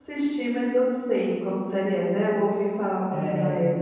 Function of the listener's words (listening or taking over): taking over